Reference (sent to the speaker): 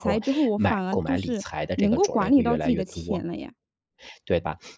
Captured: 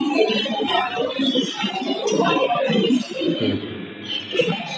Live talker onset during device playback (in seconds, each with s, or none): 3.4 s